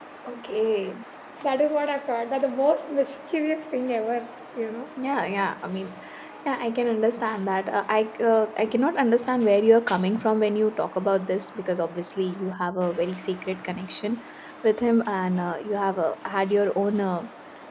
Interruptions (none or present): none